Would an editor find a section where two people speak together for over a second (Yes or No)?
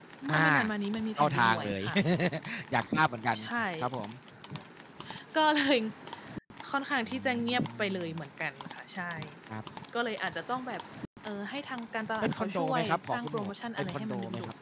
Yes